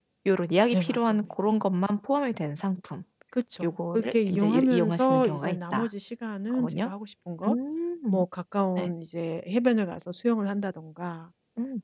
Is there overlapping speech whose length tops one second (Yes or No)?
Yes